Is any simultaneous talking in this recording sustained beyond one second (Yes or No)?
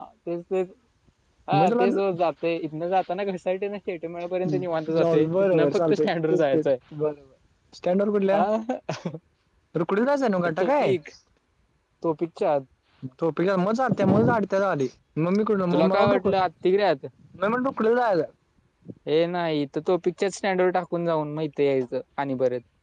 Yes